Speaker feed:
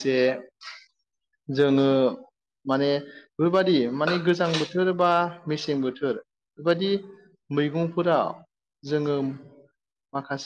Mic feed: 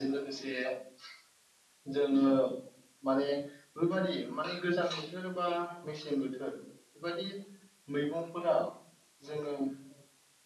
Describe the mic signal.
echo only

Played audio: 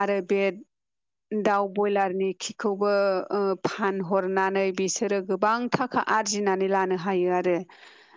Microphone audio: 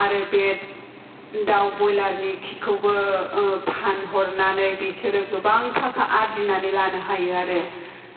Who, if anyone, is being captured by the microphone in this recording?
echo only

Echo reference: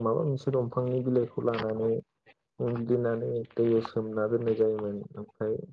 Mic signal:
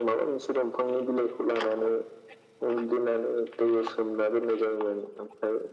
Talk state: echo only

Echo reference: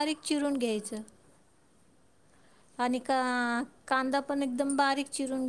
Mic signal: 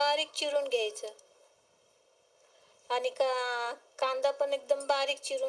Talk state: echo only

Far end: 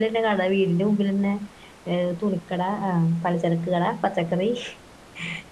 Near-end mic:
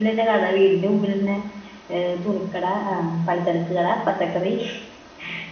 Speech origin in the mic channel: echo only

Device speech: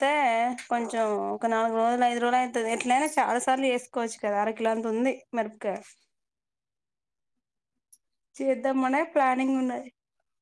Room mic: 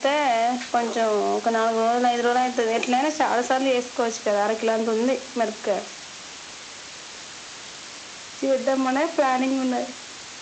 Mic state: echo only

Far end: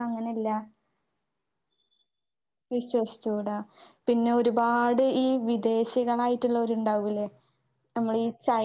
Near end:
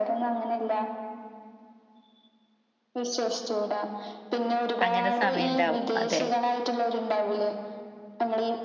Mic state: both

